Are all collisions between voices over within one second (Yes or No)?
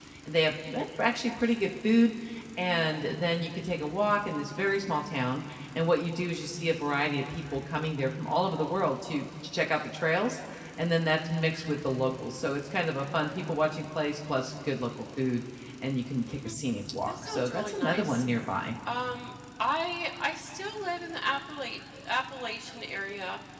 No